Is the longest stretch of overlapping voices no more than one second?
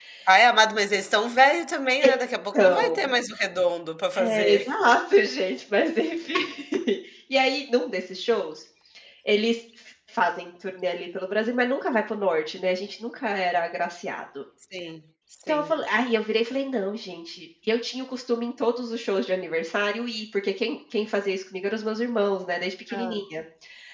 Yes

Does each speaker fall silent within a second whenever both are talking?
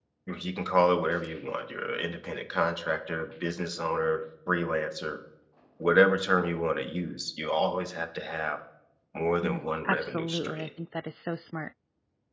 No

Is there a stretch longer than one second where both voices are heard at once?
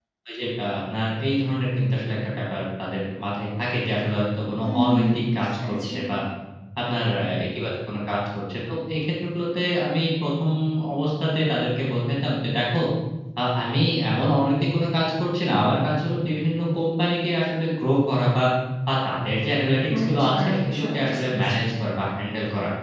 Yes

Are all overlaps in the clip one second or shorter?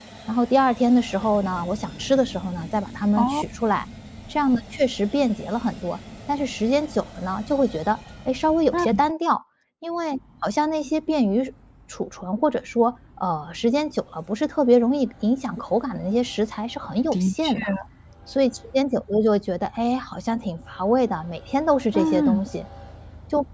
Yes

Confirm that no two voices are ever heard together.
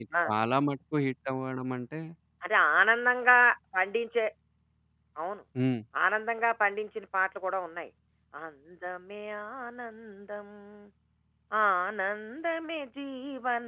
Yes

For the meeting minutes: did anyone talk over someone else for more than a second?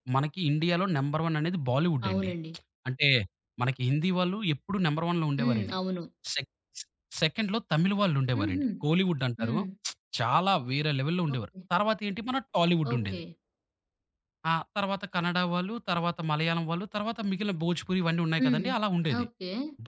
No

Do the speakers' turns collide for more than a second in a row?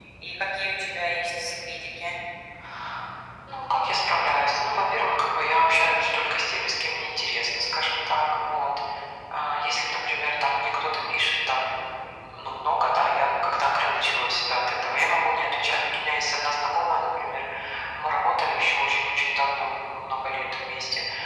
No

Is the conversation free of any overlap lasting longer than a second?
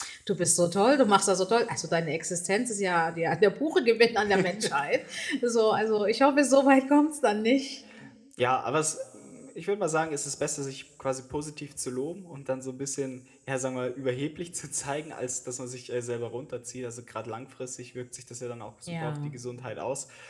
Yes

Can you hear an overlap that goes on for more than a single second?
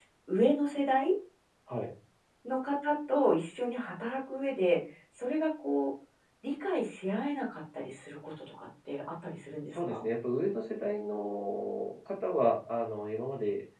No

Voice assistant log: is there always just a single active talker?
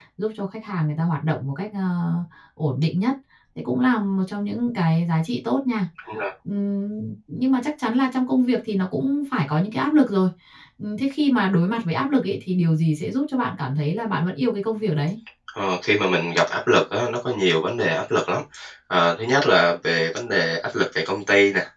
Yes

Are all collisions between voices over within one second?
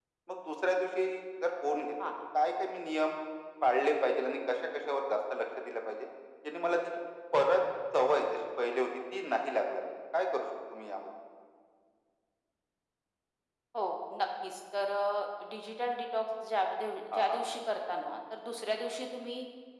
Yes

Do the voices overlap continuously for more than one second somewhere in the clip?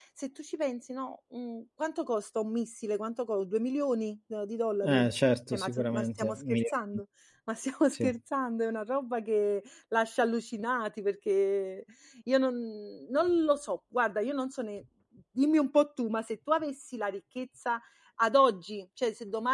Yes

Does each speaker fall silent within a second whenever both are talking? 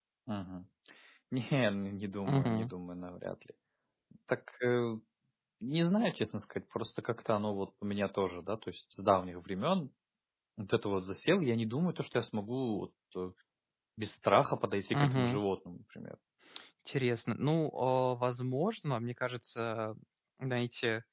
Yes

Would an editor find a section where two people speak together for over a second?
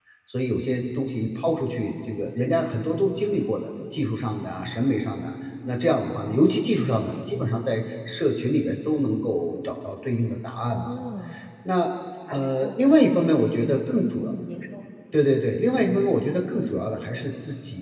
No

